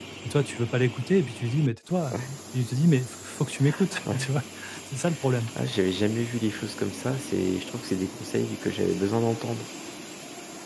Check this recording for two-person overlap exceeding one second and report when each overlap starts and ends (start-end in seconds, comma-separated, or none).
none